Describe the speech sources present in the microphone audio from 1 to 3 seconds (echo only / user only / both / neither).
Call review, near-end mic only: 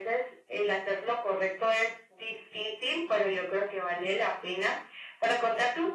echo only